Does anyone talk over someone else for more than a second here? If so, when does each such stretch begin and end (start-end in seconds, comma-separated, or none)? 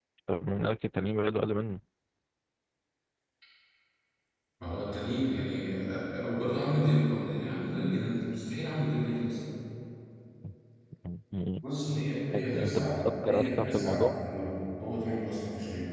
12.3-14.1